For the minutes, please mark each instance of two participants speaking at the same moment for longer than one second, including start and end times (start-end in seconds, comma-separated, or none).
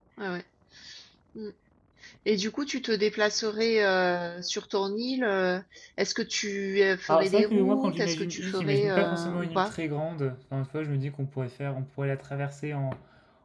7.1-9.7